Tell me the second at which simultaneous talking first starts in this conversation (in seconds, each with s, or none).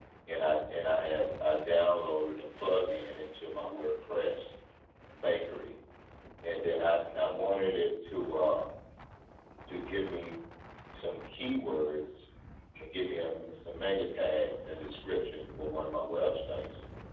none